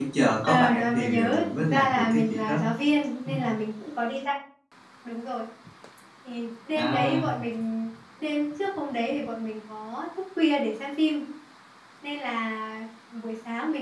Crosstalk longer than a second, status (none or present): present